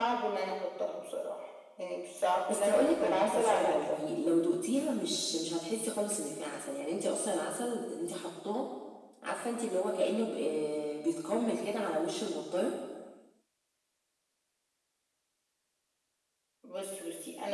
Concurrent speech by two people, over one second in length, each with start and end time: 2.5-3.9

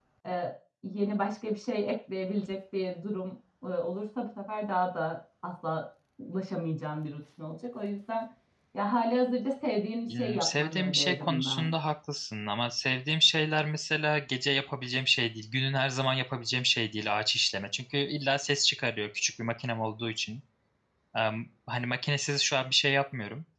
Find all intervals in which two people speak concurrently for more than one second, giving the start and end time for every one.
10.2-11.7

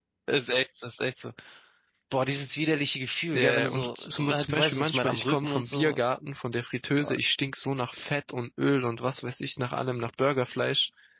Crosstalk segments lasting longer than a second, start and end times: 3.3-6.0

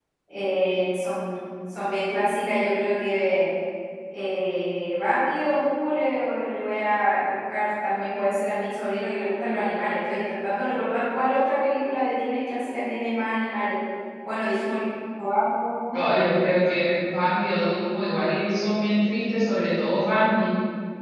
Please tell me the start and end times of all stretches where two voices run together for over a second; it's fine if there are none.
none

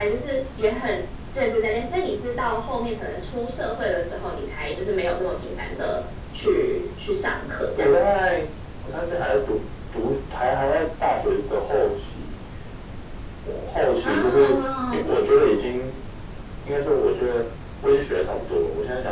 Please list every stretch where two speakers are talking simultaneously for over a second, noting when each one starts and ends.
none

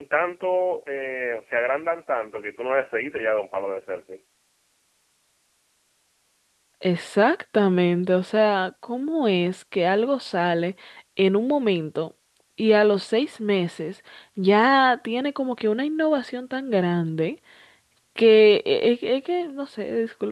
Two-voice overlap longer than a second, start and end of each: none

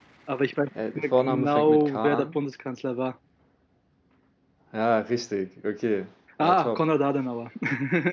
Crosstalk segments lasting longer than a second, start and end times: 1.0-2.4

